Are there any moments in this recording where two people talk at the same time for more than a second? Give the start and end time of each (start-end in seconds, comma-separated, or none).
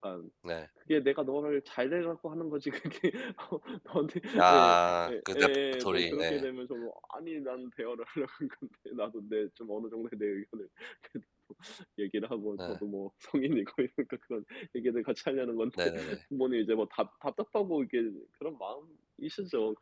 4.4-6.5